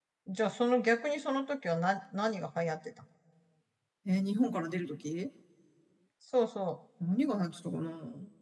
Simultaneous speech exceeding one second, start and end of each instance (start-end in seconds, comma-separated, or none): none